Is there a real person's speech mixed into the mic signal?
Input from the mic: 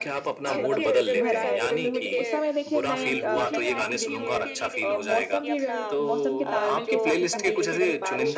Yes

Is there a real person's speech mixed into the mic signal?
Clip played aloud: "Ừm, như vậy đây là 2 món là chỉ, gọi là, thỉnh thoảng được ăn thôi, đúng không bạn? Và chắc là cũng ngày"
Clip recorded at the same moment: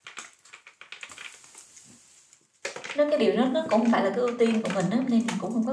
Yes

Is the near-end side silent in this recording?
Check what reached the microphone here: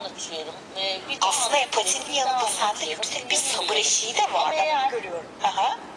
Yes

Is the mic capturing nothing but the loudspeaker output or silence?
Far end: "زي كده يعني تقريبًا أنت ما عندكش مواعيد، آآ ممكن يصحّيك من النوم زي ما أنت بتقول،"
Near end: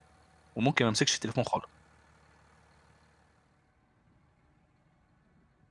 No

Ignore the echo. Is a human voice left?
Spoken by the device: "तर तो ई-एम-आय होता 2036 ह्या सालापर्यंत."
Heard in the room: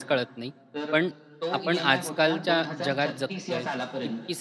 Yes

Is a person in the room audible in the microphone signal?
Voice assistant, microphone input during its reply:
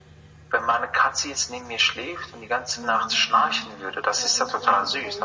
Yes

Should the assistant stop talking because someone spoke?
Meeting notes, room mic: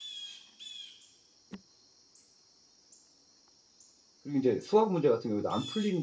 Yes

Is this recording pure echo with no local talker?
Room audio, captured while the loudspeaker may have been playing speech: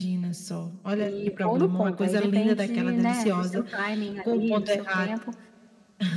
No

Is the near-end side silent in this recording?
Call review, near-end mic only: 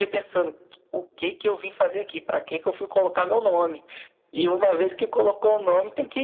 Yes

